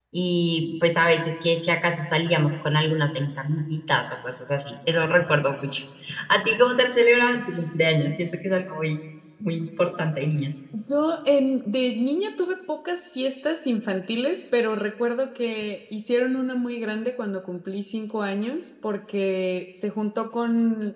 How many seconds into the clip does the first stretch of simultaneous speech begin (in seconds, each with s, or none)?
none